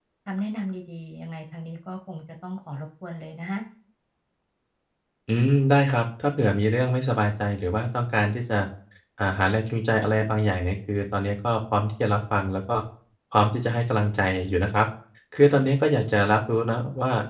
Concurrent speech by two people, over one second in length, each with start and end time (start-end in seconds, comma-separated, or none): none